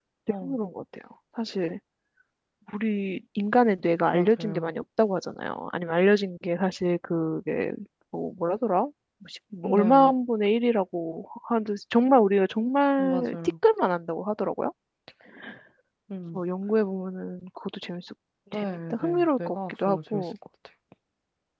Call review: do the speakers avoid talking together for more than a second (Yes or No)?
No